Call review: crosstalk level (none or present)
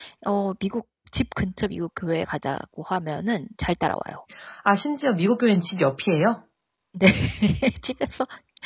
none